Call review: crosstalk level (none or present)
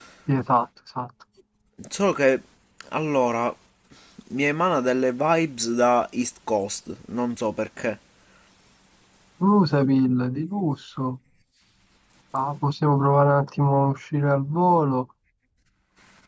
none